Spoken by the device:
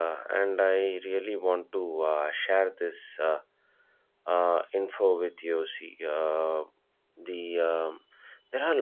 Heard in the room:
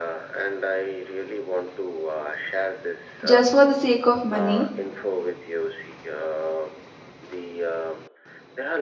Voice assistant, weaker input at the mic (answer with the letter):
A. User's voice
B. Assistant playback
B